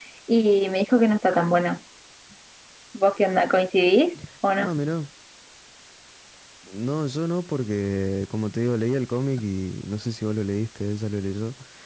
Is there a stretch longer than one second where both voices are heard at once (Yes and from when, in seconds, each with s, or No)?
No